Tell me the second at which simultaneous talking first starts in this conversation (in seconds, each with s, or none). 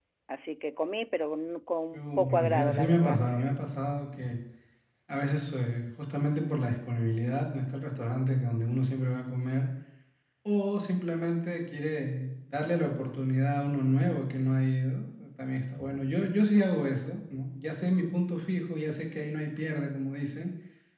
1.9 s